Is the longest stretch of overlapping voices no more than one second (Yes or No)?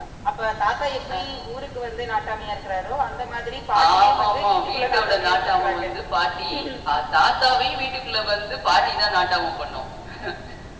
No